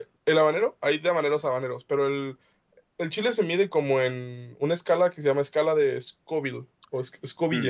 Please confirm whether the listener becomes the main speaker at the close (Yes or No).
Yes